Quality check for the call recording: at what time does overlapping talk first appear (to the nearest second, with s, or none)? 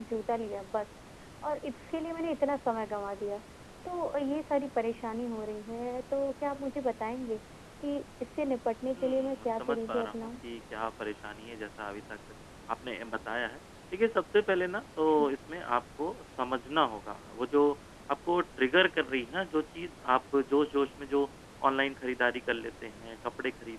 9 s